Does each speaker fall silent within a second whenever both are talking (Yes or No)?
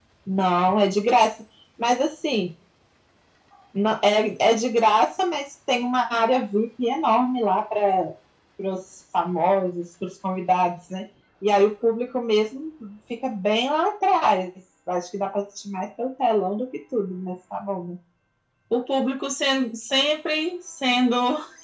Yes